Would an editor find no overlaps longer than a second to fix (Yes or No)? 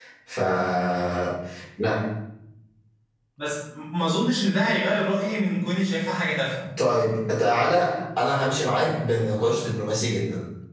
Yes